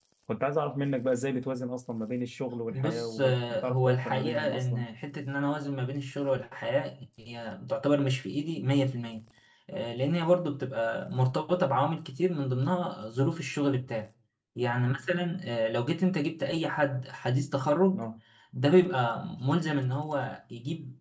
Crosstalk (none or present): present